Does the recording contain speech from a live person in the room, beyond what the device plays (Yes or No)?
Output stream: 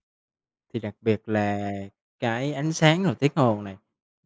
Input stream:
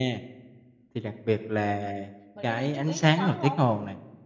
Yes